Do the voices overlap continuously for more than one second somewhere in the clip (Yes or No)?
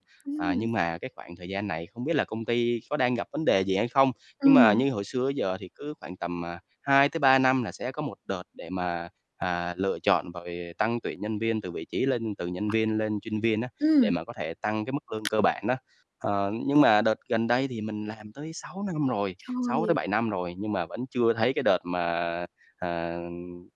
No